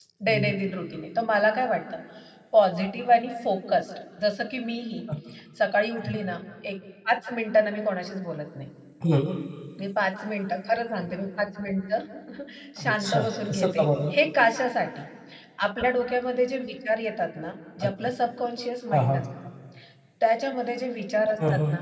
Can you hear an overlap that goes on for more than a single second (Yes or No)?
Yes